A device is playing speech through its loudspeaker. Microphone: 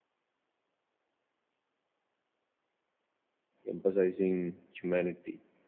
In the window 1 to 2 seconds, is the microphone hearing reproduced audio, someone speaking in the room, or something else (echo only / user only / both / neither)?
neither